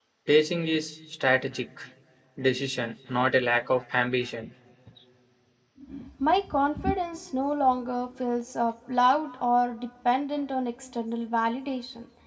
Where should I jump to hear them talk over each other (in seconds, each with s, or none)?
none